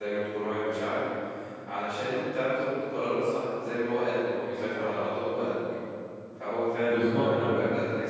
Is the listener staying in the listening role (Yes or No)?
Yes